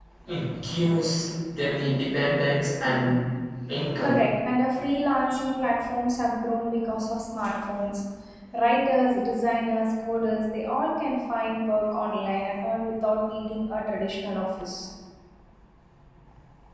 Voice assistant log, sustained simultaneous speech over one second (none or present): none